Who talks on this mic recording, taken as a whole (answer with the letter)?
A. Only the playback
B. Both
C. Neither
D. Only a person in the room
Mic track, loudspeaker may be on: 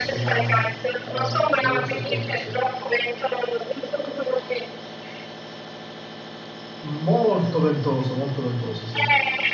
B